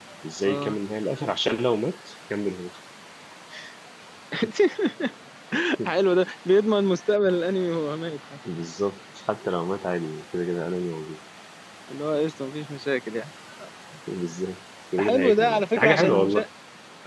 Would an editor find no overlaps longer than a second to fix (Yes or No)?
No